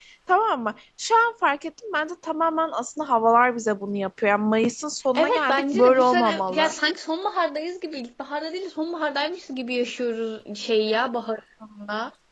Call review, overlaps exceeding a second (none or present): present